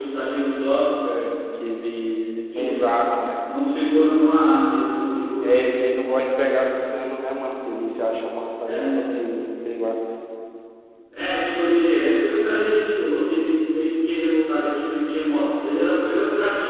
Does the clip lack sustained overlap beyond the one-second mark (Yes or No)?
Yes